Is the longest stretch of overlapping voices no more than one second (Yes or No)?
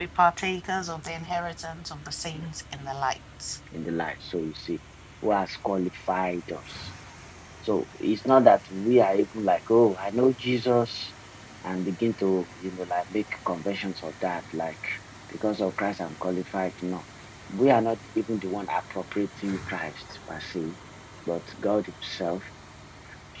Yes